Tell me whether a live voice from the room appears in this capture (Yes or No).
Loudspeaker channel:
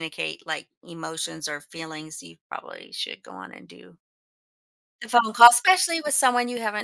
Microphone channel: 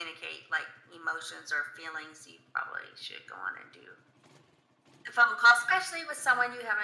No